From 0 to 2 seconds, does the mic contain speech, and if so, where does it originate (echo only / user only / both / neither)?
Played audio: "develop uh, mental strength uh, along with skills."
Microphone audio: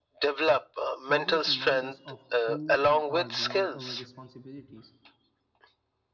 both